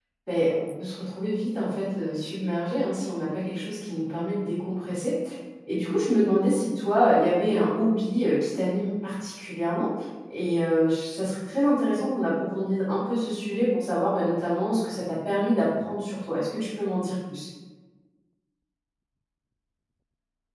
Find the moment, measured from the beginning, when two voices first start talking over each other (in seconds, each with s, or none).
none